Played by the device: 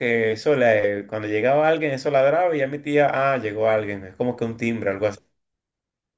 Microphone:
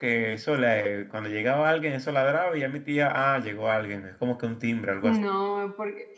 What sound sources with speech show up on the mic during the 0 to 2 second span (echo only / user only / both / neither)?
echo only